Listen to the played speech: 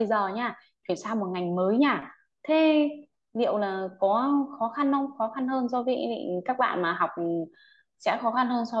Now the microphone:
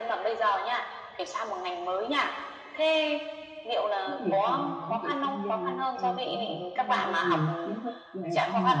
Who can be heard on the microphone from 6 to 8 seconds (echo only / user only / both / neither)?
both